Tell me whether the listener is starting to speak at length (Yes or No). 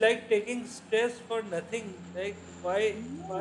No